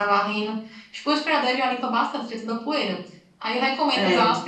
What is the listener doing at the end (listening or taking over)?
listening